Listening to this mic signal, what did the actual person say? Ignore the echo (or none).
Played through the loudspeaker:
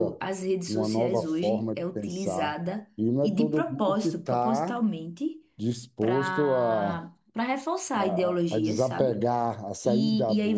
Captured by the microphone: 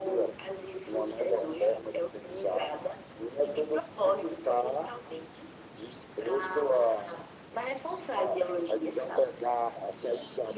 none